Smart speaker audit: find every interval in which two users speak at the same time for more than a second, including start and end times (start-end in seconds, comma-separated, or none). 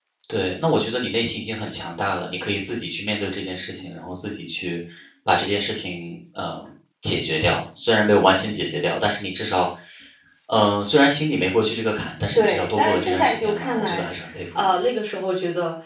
12.4-14.1